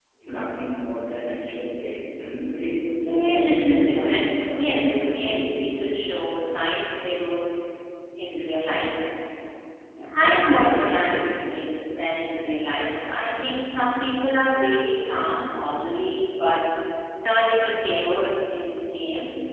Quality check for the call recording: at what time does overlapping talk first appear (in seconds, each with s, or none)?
3.0 s